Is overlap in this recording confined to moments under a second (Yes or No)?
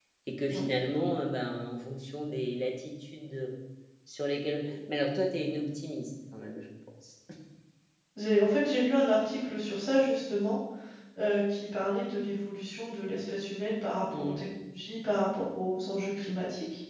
Yes